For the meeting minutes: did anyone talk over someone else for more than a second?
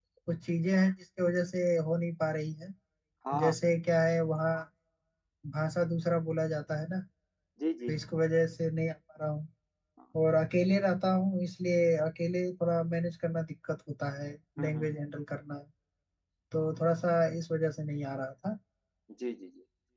No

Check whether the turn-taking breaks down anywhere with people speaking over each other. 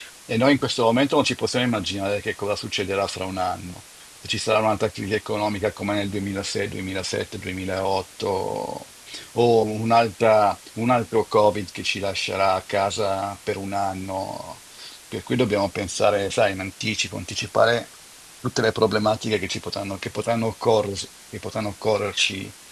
No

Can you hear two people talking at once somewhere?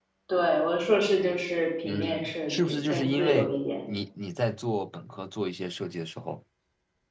Yes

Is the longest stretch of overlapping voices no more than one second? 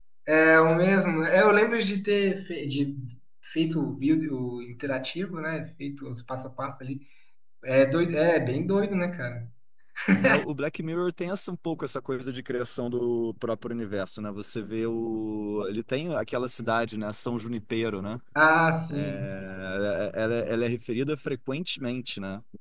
Yes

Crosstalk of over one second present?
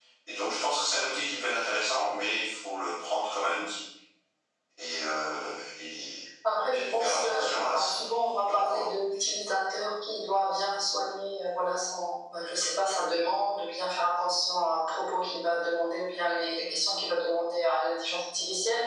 Yes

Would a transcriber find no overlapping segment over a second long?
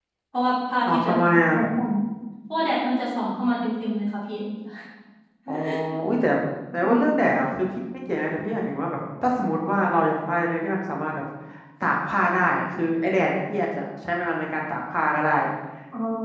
Yes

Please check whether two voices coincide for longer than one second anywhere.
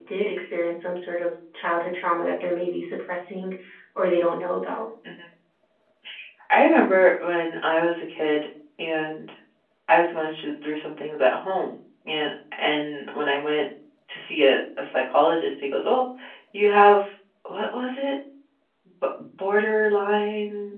No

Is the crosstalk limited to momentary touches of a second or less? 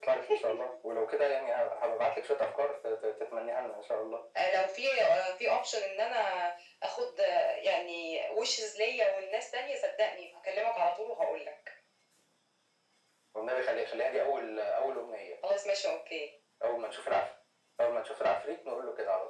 Yes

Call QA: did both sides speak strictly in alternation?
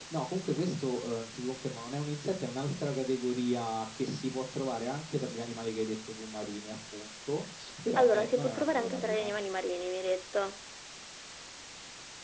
No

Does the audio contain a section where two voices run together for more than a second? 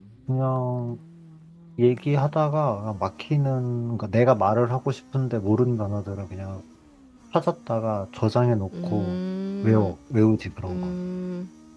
No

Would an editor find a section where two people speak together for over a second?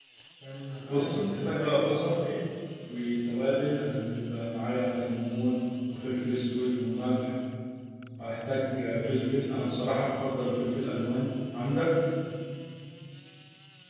Yes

